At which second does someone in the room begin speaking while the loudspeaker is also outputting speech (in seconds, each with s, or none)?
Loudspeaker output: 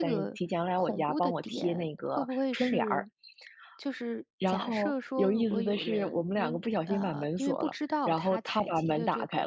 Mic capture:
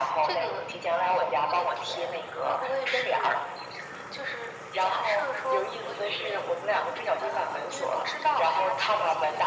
none